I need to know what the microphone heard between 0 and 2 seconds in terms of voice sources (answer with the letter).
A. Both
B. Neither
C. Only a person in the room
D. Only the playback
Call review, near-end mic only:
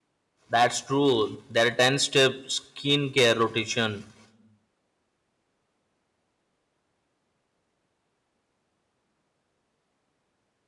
C